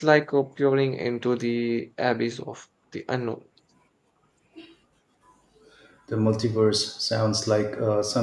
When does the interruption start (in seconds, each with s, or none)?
none